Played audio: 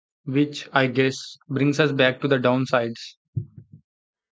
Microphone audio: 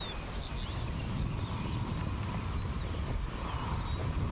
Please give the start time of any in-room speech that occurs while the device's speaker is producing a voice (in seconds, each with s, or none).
none